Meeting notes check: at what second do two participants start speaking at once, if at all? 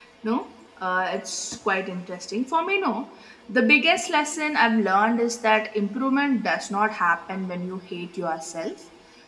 none

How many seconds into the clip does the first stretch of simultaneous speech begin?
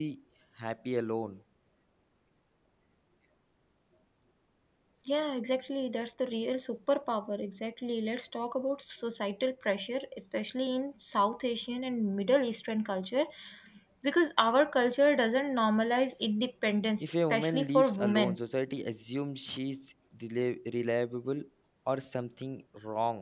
17 s

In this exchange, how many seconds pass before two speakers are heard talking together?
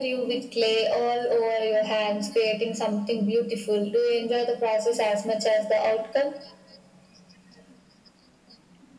none

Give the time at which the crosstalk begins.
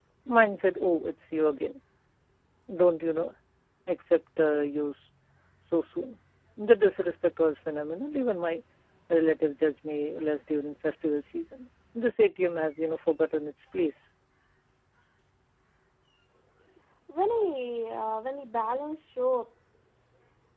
none

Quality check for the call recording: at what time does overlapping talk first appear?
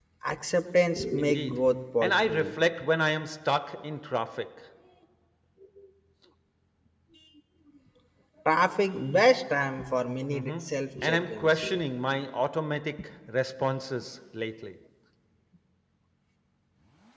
1 s

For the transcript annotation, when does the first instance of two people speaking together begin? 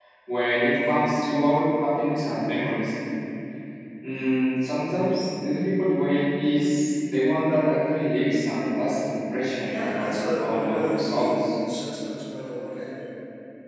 10 s

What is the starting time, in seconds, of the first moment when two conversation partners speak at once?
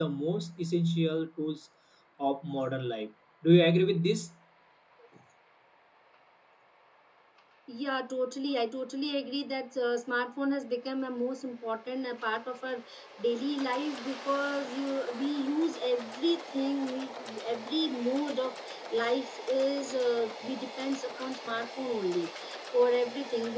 none

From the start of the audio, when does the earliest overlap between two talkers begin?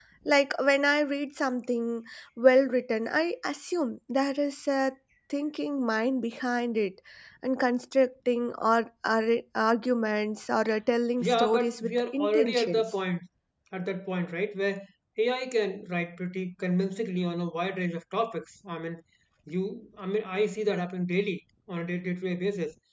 11 s

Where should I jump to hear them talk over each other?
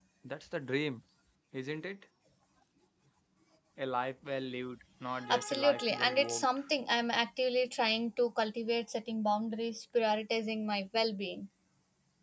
5 s

